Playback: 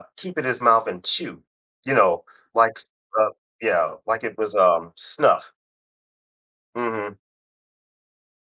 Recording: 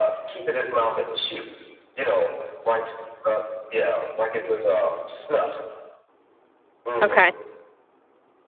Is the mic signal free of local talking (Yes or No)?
No